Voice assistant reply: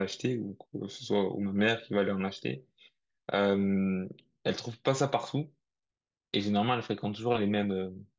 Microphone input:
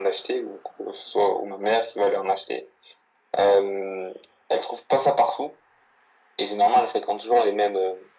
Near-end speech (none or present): none